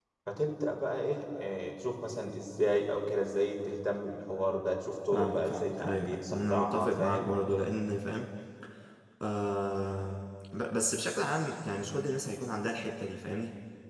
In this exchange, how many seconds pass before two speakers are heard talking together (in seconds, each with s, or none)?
5.1 s